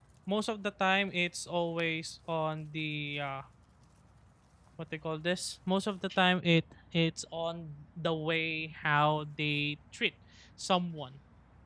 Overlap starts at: none

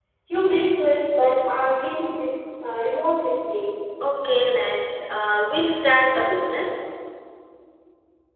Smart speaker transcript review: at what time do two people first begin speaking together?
none

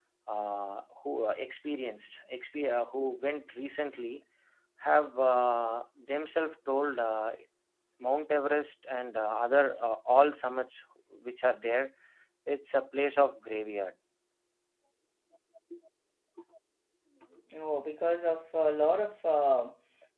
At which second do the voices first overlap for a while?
none

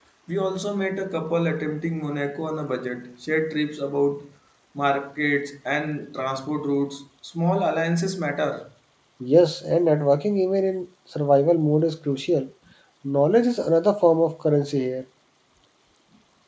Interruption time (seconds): none

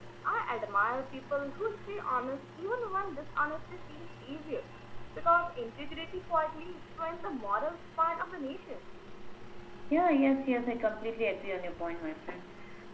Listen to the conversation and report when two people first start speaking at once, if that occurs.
none

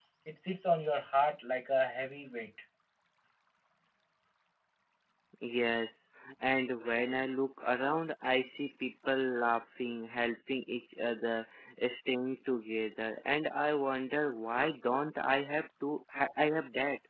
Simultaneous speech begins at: none

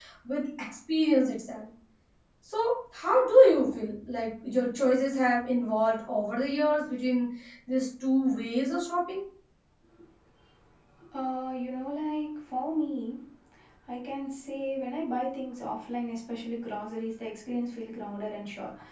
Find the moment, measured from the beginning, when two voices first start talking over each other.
none

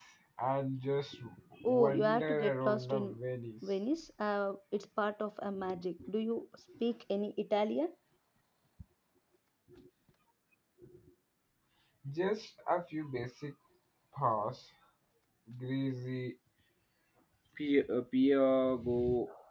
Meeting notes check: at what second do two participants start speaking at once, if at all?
2 s

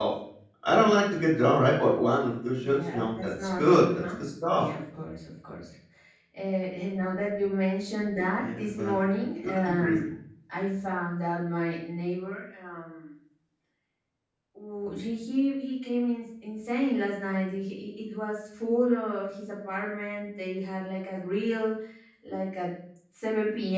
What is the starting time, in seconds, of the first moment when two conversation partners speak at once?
3 s

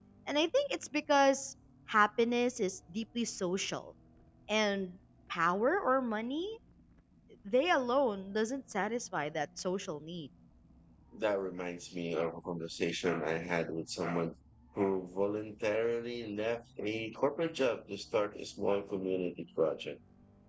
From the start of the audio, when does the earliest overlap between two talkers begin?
none

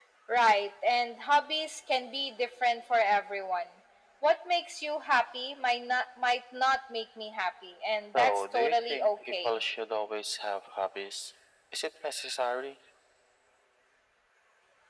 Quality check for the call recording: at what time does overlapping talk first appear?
8 s

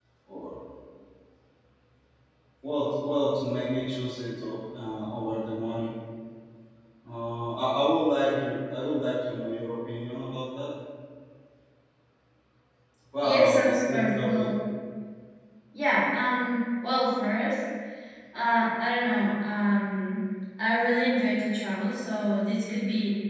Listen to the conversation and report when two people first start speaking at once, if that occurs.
13 s

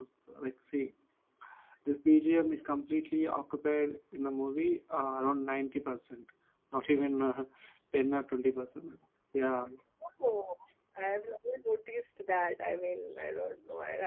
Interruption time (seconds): none

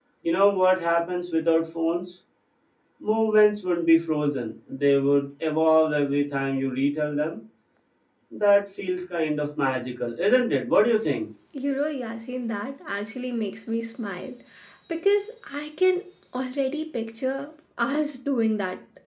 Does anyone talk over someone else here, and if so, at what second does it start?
none

